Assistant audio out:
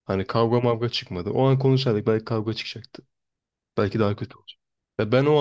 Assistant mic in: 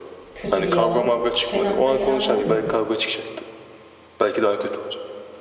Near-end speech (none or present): present